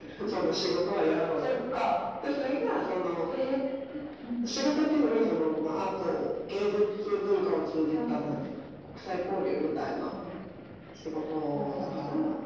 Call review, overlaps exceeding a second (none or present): none